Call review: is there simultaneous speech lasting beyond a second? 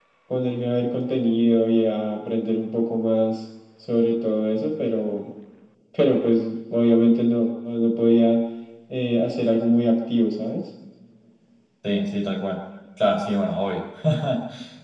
No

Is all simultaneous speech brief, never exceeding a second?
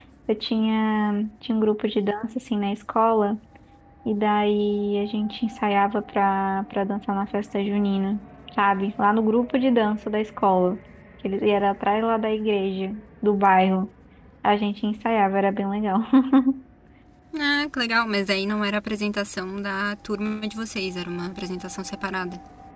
Yes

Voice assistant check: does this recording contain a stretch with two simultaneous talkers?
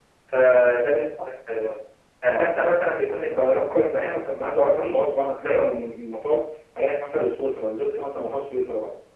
Yes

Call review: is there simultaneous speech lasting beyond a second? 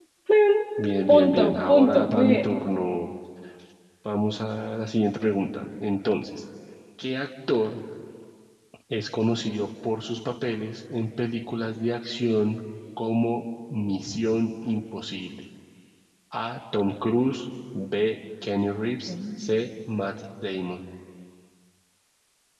Yes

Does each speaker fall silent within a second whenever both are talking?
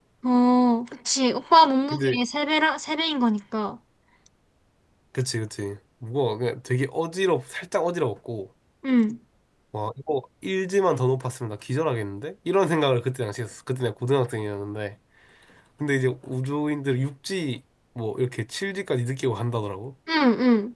Yes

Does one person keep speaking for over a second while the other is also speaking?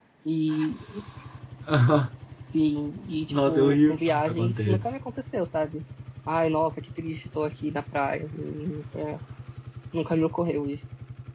Yes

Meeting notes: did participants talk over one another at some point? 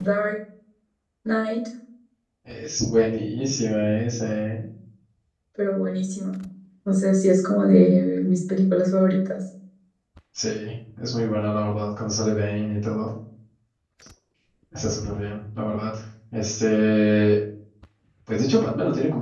No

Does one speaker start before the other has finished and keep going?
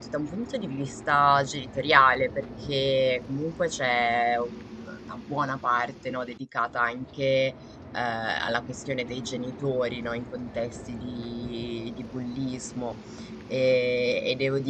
No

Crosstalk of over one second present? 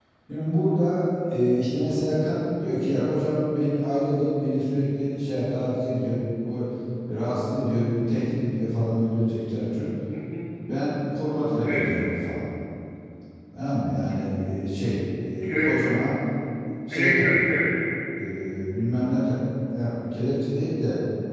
No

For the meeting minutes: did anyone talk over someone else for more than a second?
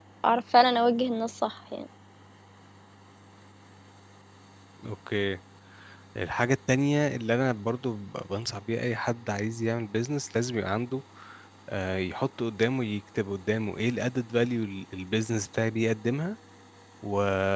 No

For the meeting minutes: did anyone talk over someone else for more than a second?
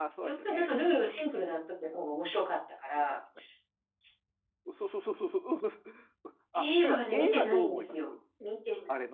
Yes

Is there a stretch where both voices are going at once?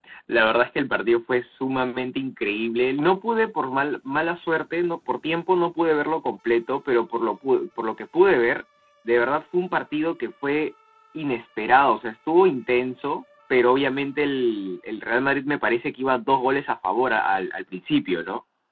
No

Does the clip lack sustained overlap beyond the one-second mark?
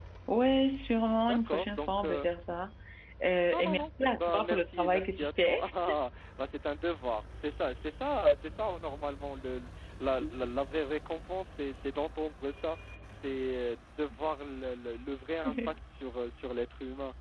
No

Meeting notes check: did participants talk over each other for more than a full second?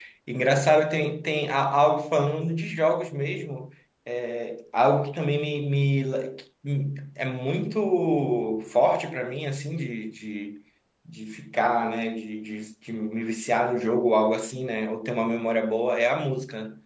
No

